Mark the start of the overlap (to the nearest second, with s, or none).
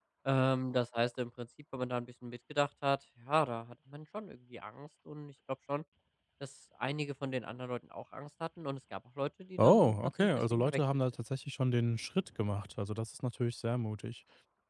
10 s